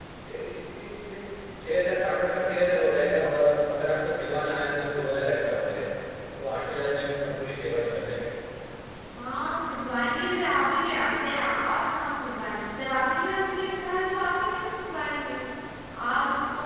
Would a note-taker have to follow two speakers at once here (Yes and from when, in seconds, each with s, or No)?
No